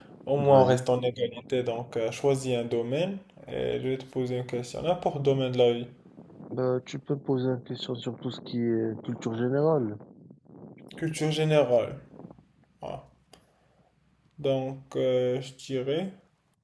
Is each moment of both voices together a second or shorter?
Yes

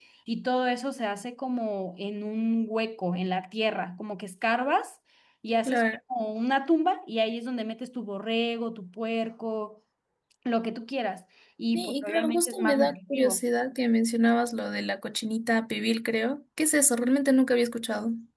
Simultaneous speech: Yes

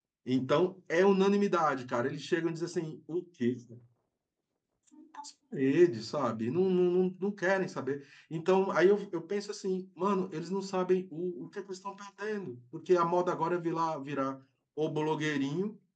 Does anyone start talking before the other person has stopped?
No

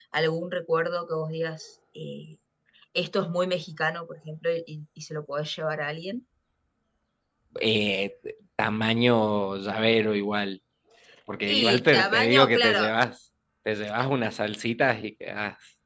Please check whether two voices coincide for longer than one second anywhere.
Yes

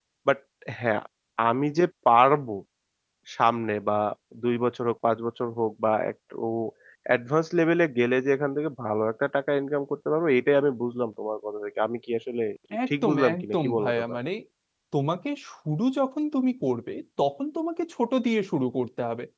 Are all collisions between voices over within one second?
No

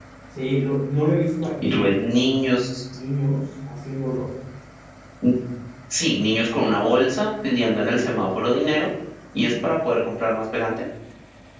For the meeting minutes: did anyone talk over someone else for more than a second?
No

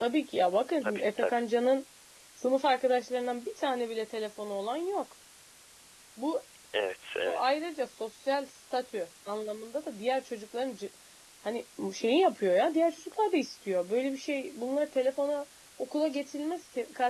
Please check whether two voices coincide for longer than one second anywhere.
No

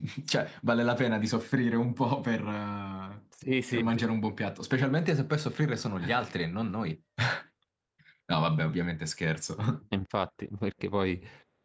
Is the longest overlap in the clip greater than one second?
No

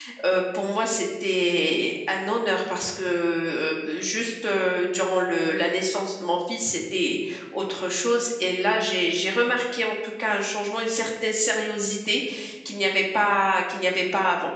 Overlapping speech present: No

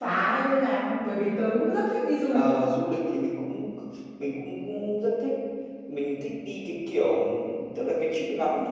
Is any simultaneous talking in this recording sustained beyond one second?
No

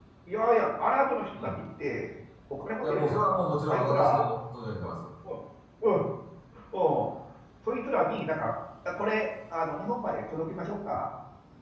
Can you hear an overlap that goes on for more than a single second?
Yes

